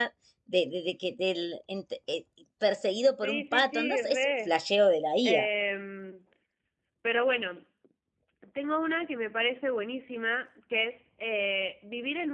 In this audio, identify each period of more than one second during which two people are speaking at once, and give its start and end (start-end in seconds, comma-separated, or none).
3.2-4.5